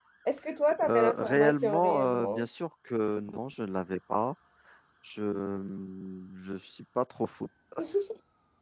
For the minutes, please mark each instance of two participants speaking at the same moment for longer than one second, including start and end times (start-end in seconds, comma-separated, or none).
0.9-2.4